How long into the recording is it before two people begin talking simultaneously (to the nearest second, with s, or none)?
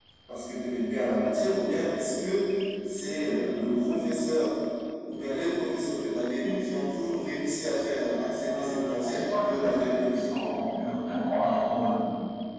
8 s